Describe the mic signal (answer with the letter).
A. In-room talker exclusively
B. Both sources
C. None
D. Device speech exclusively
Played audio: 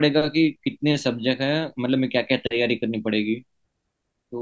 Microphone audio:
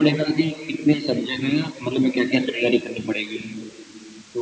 D